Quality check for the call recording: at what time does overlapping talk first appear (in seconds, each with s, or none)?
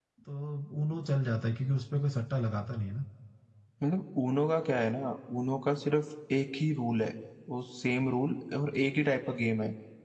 none